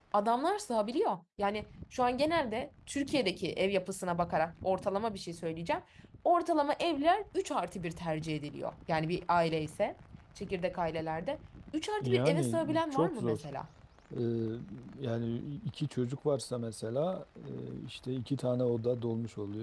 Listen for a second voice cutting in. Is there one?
Yes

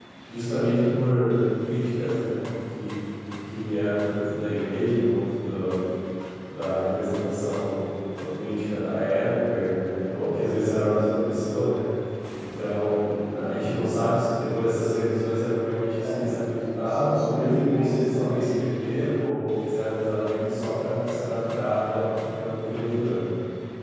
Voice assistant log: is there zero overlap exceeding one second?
No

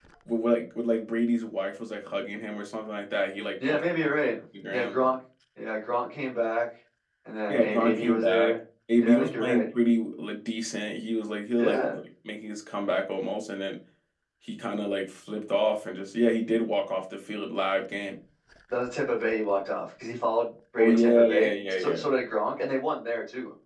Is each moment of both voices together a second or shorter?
No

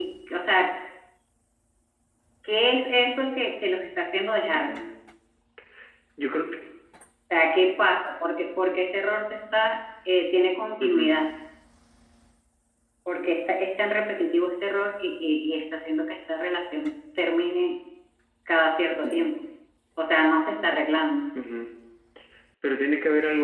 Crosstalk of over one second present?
No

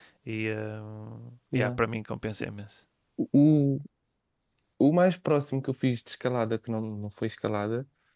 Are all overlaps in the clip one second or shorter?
Yes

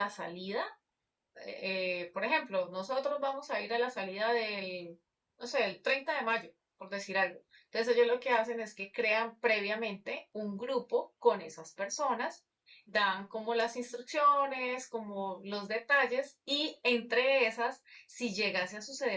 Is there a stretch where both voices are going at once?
No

